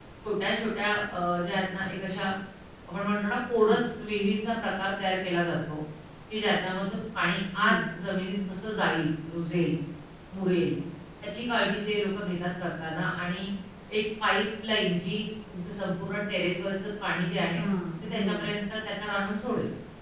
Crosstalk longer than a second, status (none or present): none